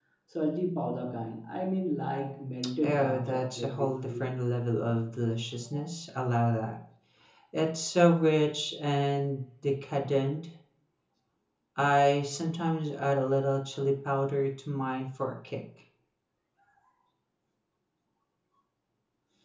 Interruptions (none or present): present